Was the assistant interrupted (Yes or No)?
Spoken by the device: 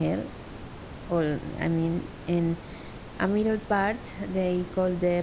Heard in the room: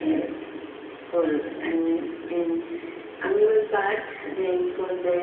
No